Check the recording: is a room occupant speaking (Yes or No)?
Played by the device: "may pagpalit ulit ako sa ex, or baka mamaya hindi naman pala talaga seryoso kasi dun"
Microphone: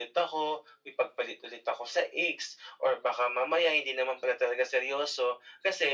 No